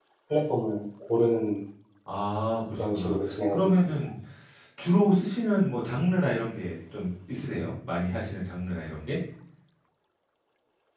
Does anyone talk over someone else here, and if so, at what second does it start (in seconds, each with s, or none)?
2.7 s